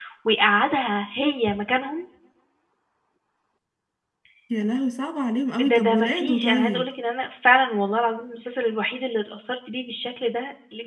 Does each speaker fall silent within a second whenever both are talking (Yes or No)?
No